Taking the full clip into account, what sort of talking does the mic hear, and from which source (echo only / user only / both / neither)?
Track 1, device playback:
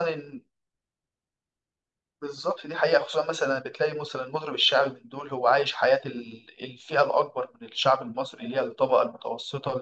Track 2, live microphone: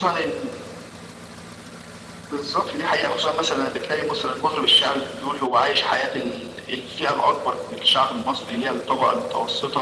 echo only